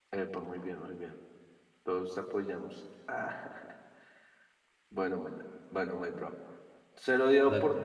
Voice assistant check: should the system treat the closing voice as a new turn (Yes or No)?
No